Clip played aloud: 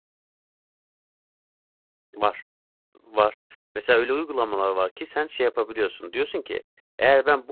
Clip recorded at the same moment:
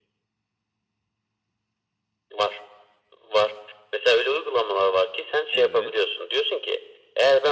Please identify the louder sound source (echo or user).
echo